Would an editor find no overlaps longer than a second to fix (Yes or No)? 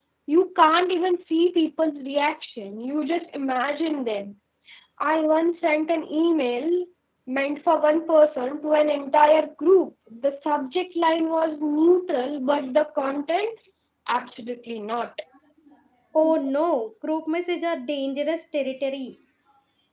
Yes